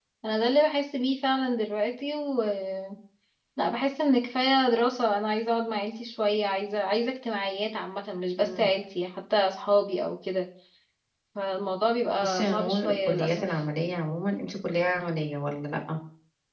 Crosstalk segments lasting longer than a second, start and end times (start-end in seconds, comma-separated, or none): 12.2-13.5